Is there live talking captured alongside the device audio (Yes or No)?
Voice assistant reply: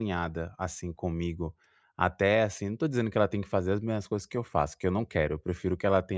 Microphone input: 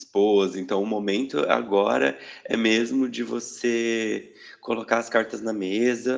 Yes